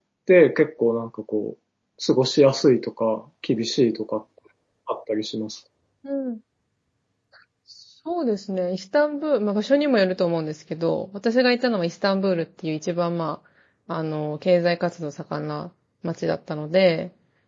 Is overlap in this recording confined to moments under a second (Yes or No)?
Yes